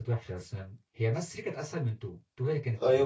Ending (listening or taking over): taking over